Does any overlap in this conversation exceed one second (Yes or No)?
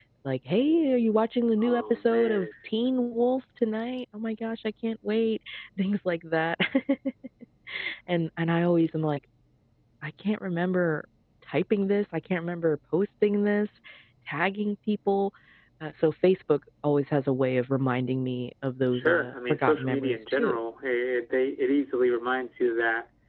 Yes